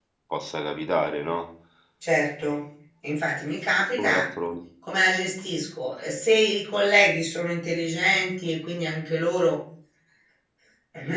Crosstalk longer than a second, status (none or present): none